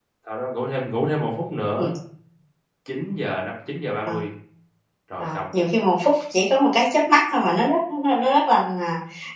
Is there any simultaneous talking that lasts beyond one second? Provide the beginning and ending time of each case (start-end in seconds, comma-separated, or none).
none